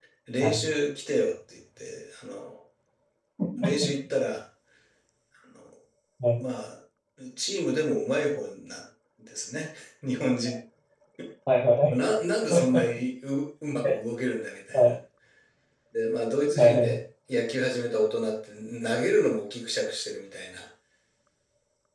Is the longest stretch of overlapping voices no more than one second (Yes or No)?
Yes